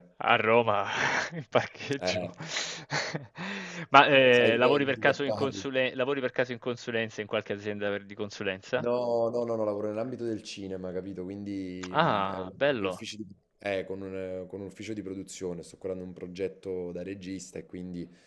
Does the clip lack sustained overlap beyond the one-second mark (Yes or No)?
No